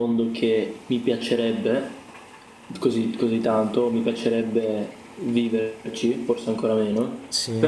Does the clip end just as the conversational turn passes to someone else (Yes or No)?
No